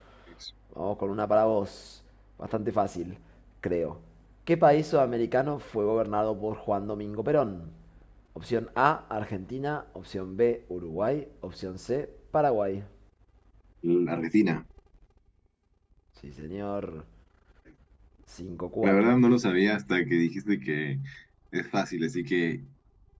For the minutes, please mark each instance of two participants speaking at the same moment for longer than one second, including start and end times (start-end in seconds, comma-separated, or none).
none